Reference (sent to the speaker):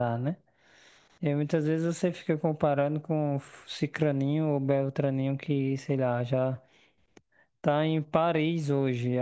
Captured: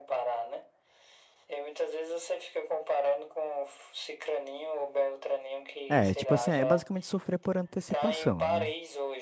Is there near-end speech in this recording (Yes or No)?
Yes